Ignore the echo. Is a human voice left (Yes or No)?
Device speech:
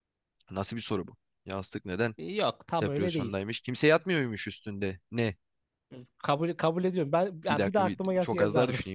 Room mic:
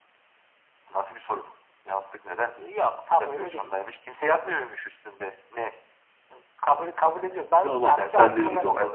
Yes